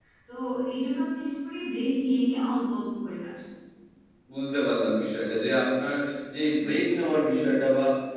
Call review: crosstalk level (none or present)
none